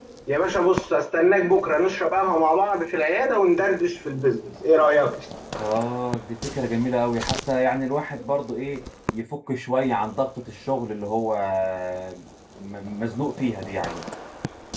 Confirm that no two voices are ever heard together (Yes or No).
Yes